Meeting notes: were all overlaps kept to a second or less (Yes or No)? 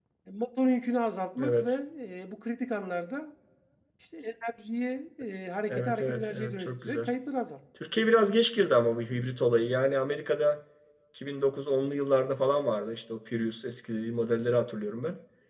No